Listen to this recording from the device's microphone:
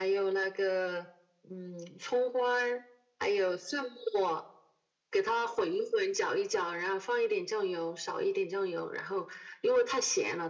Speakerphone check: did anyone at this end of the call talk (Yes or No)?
No